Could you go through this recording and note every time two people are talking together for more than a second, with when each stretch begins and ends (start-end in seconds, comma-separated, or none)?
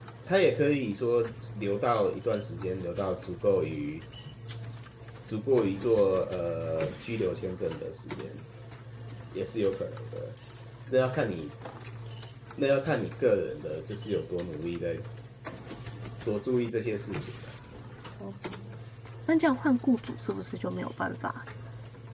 none